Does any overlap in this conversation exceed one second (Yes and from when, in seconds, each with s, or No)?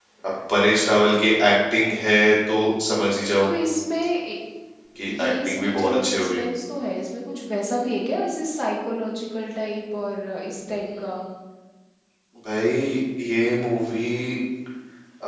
Yes, from 5.2 s